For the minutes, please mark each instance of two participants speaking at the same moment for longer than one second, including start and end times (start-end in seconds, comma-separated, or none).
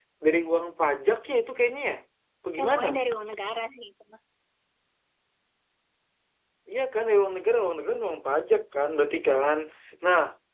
none